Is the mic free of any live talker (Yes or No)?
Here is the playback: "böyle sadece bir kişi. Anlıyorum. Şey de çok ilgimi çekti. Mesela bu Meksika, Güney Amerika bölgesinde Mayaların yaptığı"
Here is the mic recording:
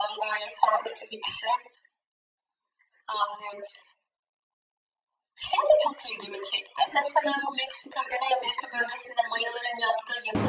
Yes